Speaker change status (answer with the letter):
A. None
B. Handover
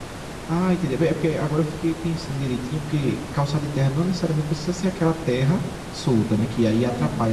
A